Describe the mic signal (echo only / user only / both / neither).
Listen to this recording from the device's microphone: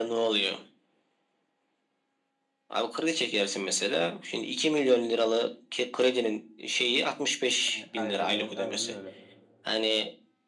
both